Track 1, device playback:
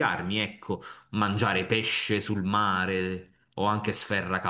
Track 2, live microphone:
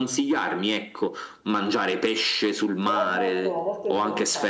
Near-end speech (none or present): present